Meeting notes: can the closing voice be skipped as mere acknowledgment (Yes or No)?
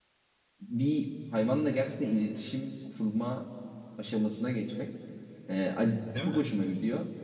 Yes